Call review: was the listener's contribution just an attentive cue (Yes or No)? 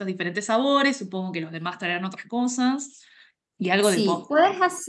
No